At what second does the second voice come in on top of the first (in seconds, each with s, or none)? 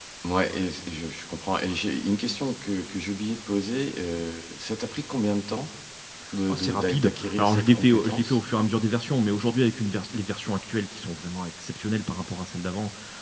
6.5 s